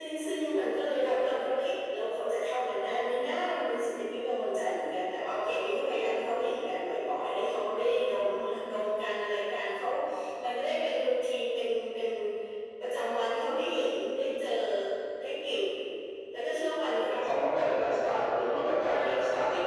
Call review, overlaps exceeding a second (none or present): present